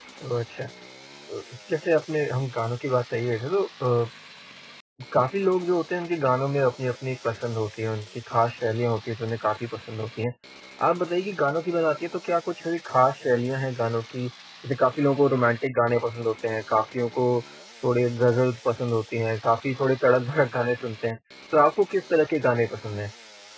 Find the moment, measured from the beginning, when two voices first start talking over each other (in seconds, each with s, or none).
none